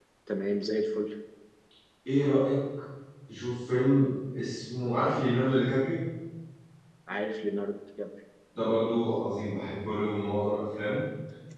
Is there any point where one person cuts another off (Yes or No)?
No